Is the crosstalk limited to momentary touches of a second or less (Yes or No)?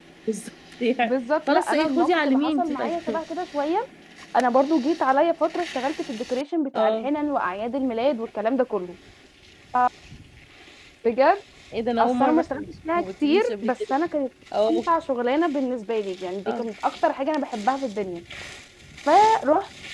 No